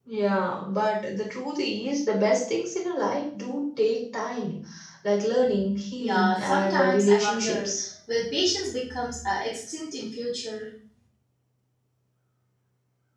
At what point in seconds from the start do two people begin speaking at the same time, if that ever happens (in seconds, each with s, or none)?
6.0 s